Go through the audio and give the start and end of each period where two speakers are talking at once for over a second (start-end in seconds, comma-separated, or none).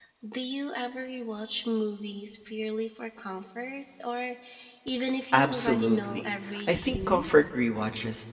5.3-7.3